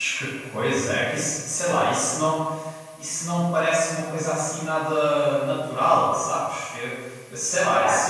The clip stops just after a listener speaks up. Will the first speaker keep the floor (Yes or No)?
Yes